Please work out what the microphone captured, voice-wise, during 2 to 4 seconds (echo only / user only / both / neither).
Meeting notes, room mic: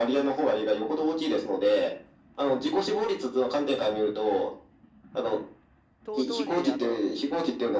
echo only